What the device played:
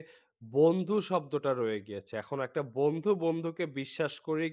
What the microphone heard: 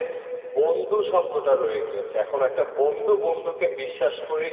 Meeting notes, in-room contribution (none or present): none